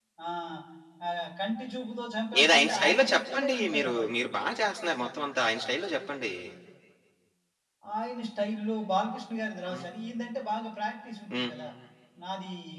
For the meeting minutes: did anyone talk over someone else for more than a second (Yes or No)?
Yes